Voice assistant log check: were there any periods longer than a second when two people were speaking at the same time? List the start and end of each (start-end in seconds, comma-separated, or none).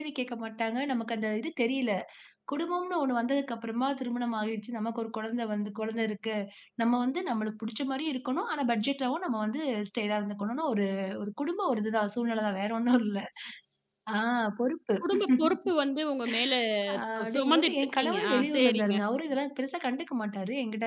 17.2-18.9